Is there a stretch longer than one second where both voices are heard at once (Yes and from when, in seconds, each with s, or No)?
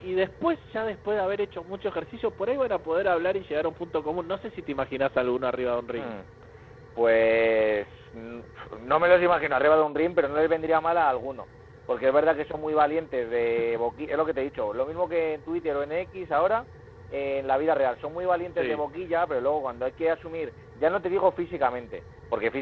No